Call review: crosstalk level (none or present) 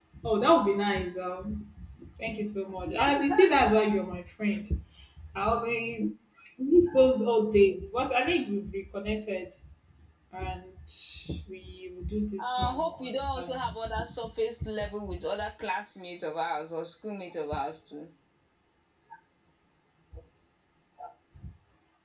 present